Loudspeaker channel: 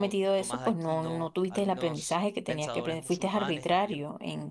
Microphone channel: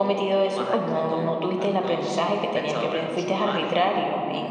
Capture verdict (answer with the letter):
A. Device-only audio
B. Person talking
A